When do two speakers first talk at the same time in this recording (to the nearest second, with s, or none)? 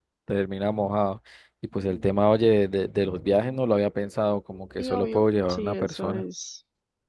5 s